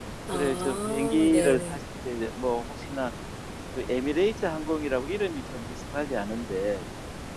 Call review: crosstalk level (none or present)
present